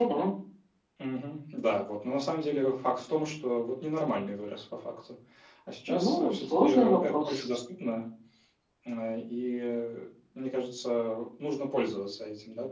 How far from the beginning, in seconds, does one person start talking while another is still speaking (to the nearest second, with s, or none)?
6 s